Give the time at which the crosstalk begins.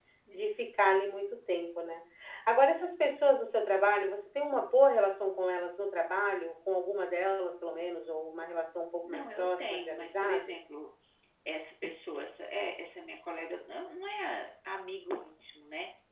9.0 s

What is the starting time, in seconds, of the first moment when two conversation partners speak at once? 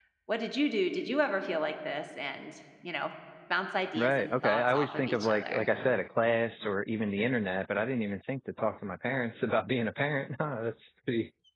4.0 s

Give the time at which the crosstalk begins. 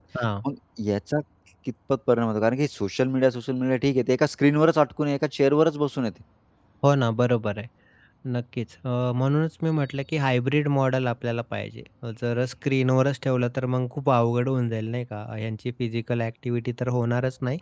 none

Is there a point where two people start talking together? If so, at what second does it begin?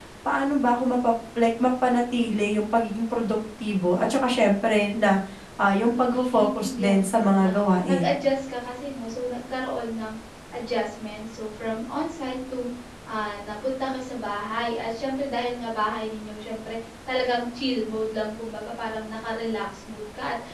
5.8 s

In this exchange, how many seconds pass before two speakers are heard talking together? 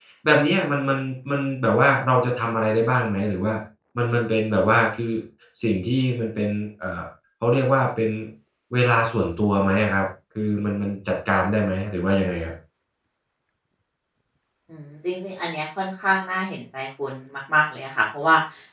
none

